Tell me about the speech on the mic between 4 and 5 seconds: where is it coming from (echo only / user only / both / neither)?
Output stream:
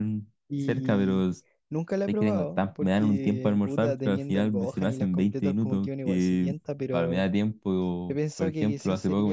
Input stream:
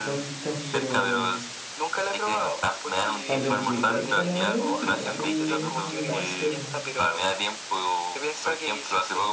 both